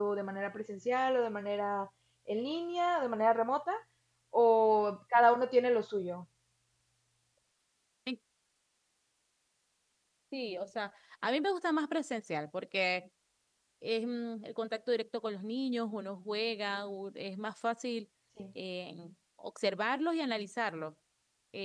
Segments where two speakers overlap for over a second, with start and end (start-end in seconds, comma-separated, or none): none